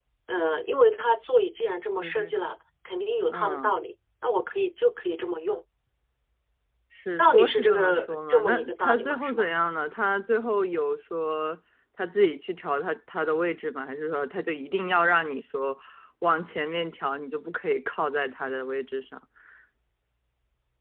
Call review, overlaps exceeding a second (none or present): present